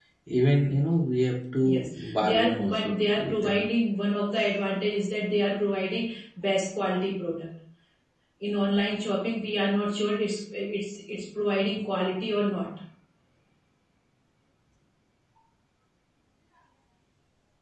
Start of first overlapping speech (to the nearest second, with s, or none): 2 s